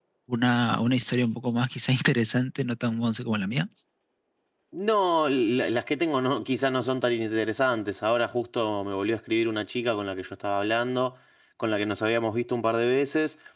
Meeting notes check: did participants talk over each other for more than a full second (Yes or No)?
No